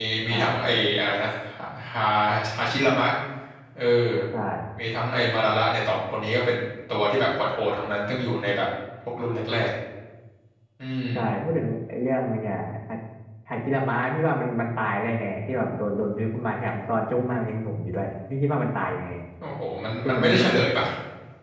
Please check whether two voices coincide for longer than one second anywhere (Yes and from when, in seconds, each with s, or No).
No